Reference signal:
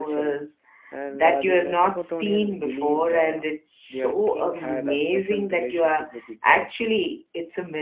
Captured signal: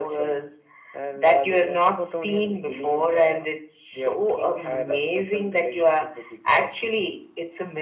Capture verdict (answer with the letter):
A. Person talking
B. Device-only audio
B